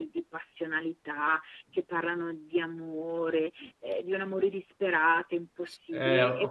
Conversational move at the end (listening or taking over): taking over